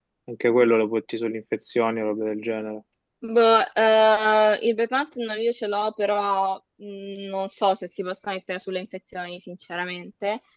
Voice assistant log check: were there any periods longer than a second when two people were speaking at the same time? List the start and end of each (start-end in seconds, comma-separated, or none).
none